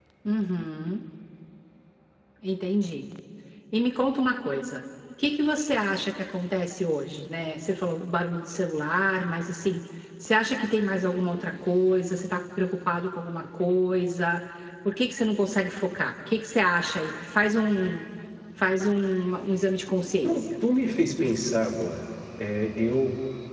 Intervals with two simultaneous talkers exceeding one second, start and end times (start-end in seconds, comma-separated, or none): none